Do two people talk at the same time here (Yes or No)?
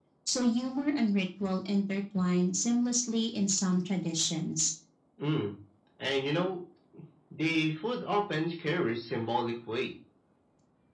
No